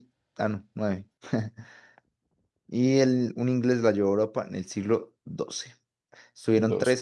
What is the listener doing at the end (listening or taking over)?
listening